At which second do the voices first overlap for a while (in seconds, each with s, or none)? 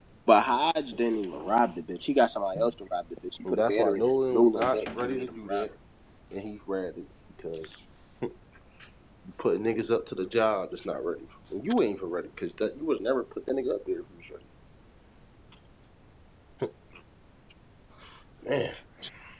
3.5 s